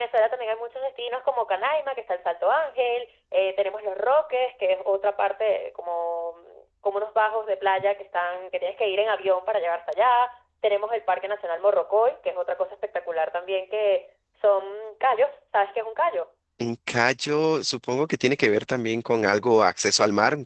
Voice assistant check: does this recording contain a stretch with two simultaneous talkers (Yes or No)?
No